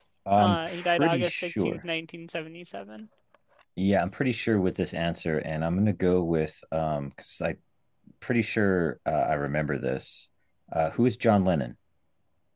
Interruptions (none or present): present